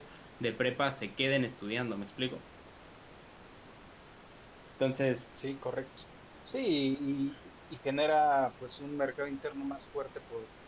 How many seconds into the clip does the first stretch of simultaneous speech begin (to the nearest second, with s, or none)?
none